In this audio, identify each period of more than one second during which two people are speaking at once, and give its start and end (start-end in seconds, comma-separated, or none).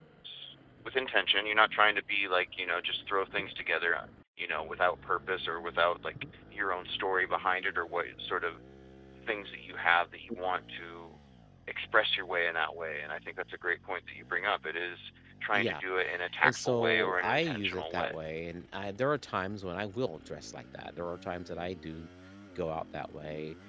16.4-18.1